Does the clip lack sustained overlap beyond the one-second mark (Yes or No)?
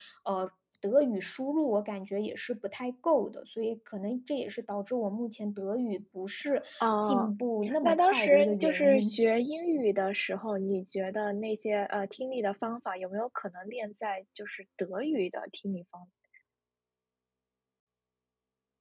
No